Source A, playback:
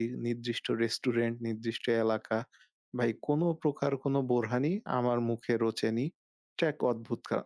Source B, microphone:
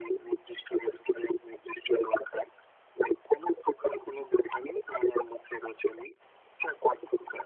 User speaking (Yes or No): No